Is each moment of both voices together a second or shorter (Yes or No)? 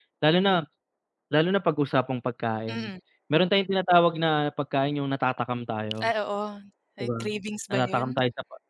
Yes